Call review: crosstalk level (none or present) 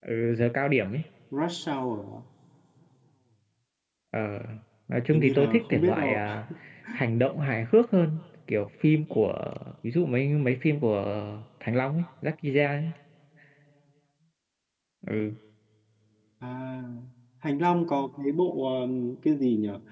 present